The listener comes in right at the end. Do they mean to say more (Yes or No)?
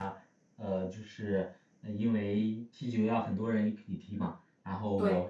No